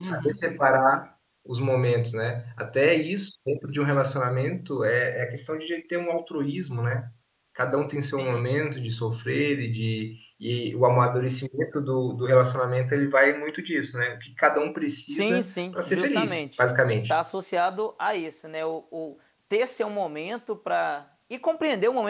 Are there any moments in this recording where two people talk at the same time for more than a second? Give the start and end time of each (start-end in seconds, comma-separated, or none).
15.1-16.4